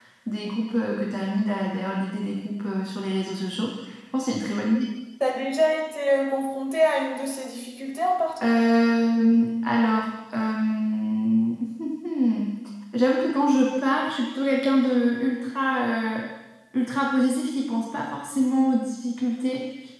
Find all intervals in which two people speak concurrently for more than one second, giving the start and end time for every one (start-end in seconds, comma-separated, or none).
none